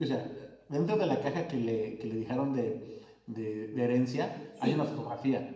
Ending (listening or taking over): listening